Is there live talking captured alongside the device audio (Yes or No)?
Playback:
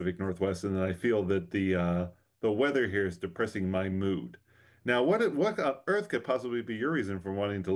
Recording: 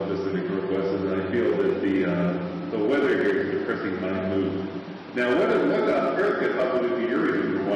No